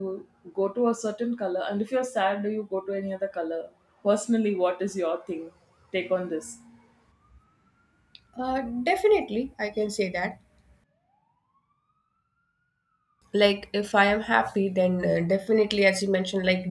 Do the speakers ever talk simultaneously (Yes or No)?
No